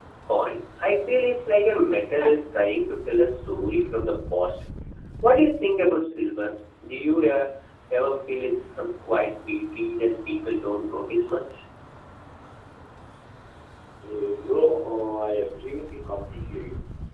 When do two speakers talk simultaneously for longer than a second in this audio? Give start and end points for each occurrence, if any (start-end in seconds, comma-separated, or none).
none